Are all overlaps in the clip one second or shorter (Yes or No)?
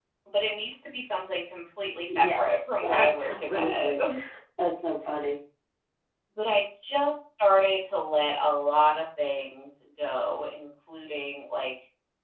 No